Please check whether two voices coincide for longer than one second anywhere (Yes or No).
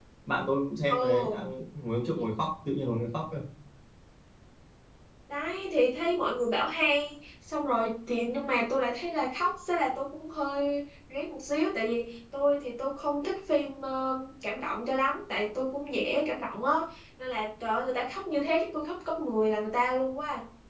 No